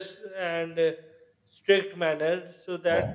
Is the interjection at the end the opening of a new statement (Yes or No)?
No